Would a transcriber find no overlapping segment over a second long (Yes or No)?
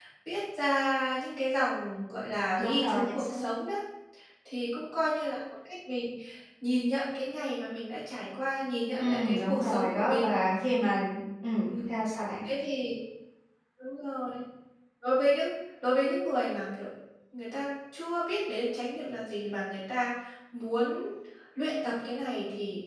No